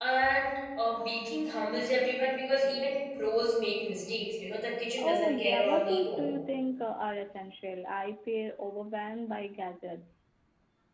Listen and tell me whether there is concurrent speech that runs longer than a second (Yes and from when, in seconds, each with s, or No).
Yes, from 5.0 s